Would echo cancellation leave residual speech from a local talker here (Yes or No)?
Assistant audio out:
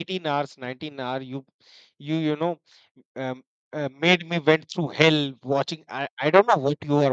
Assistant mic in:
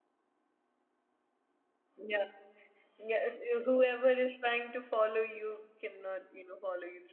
Yes